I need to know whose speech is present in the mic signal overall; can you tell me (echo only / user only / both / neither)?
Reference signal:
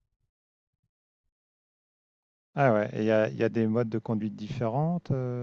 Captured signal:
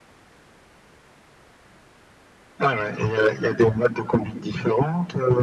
echo only